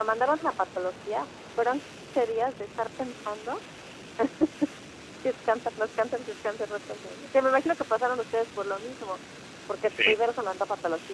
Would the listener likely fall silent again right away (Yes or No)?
Yes